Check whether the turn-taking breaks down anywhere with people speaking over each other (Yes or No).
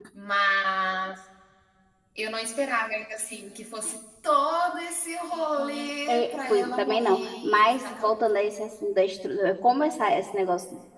Yes